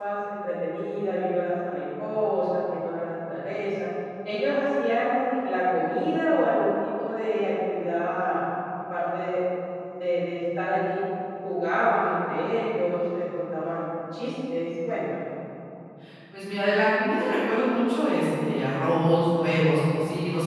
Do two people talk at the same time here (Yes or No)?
No